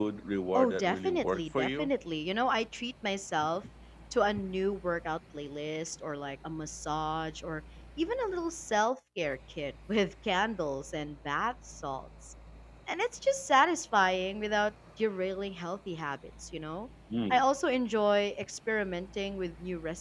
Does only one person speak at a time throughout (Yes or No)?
No